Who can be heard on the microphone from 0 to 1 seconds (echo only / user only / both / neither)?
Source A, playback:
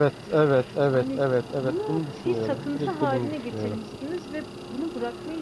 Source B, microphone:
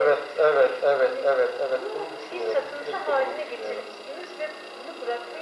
echo only